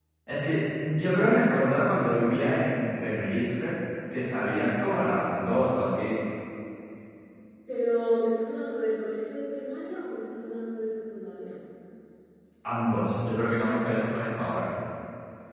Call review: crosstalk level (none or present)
none